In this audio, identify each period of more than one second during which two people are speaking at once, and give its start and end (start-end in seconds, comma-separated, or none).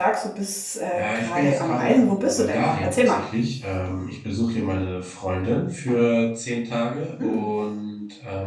0.9-3.2